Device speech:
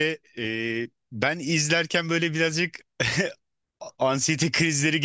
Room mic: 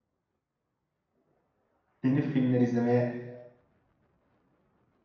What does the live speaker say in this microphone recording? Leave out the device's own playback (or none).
yeni filmler izlemeye